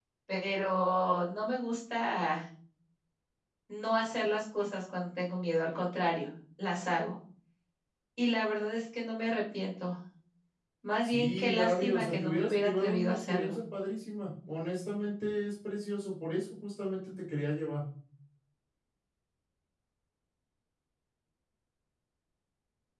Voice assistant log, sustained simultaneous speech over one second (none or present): present